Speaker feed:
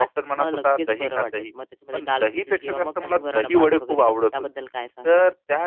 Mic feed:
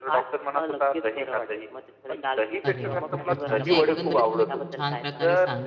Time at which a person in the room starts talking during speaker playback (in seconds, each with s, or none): 2.6 s